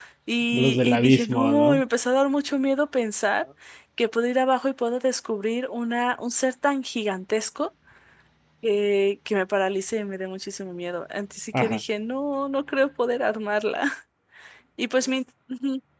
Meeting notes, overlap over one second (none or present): present